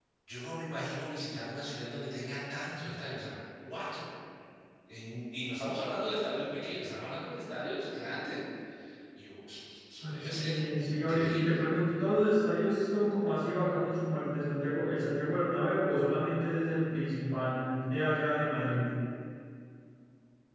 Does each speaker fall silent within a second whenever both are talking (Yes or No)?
No